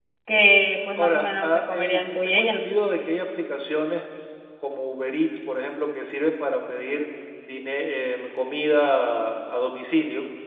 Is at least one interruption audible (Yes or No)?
Yes